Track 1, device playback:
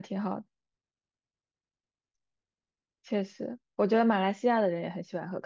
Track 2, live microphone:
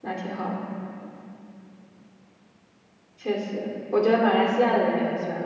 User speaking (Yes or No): No